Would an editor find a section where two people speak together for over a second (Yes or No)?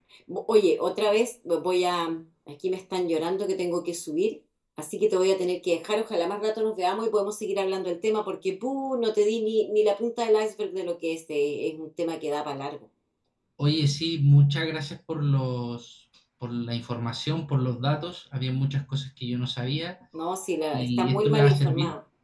Yes